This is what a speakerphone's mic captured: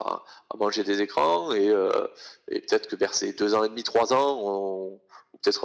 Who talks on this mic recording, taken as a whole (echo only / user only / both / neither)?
echo only